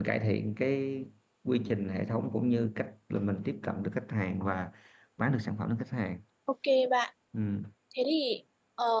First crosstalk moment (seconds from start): none

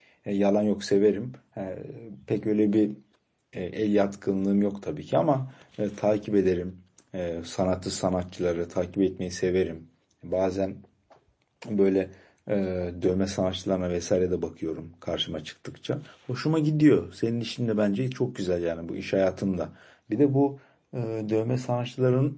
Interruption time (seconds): none

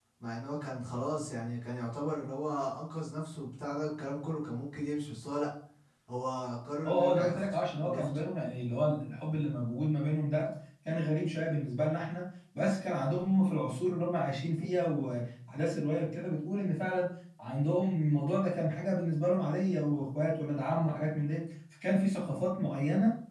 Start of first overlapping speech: 6.8 s

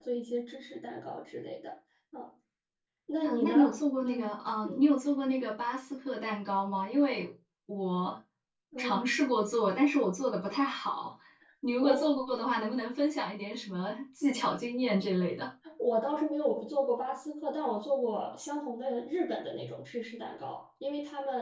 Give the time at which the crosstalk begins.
3.2 s

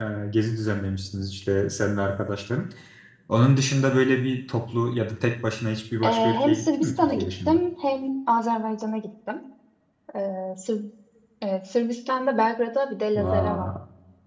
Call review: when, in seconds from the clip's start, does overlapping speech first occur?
6.0 s

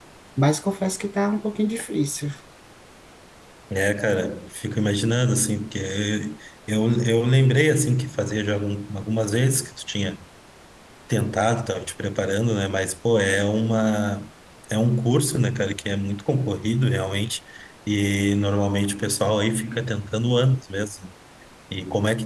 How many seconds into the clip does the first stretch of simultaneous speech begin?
none

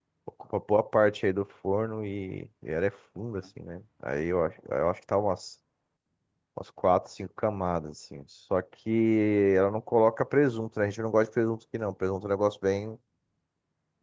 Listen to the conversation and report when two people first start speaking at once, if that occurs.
none

